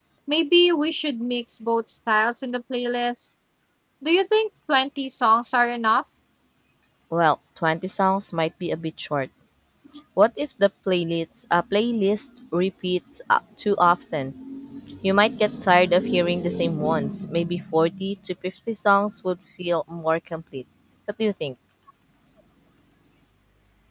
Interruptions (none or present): none